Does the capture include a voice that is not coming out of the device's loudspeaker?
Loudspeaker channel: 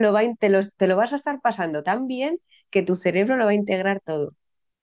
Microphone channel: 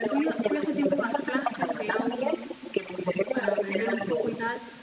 Yes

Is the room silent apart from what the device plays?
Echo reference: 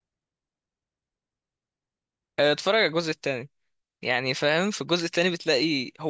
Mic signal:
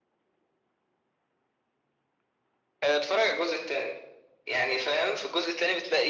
Yes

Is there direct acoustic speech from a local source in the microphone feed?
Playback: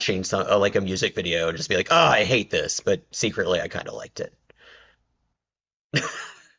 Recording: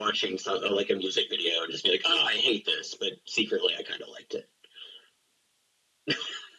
No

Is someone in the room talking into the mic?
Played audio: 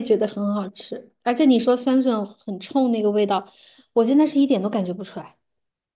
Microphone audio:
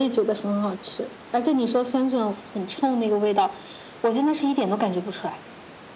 No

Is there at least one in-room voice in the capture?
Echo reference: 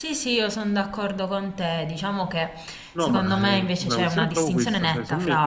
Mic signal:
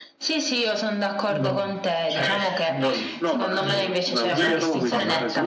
Yes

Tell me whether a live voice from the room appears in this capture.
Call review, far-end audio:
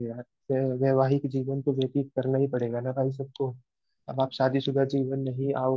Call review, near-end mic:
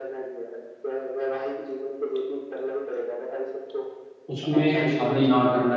Yes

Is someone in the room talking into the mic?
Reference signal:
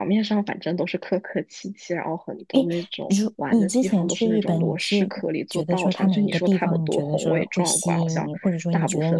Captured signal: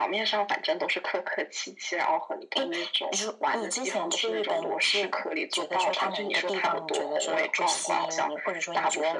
No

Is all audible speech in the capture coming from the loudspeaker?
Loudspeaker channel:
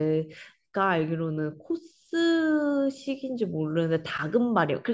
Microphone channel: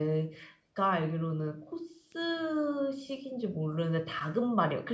Yes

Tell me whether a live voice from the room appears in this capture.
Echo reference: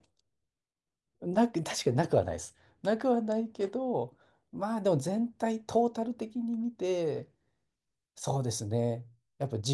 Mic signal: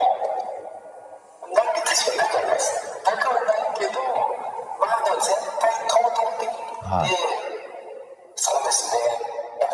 Yes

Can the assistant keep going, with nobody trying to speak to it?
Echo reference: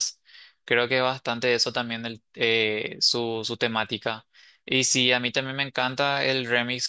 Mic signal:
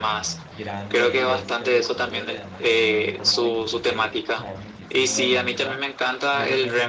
No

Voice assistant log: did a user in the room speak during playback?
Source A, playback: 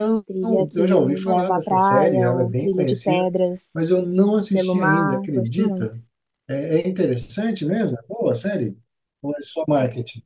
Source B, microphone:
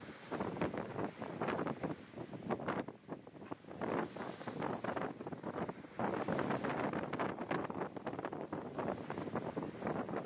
No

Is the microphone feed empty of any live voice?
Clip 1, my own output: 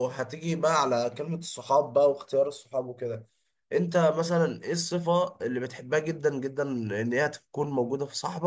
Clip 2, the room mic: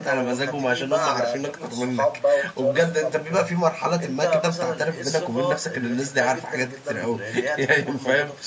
No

